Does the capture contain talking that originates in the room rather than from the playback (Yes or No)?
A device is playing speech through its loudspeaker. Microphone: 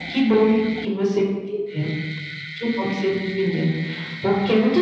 No